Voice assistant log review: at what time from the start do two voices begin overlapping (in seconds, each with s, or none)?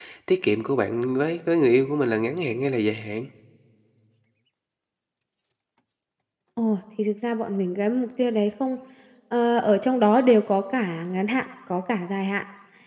none